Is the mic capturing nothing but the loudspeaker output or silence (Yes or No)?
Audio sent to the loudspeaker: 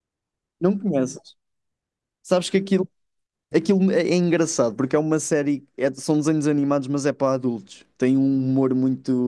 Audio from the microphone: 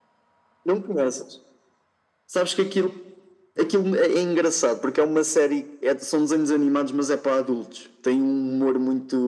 Yes